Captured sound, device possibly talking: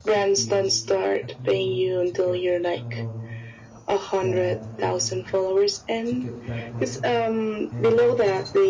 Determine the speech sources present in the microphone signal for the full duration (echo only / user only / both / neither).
both